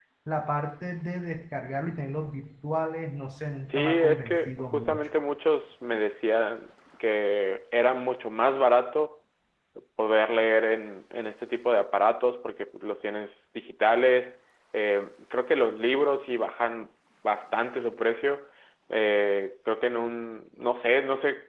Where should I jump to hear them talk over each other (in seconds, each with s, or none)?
3.7 s